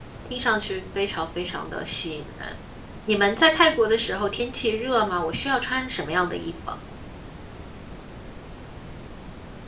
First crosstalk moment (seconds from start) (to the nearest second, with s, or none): none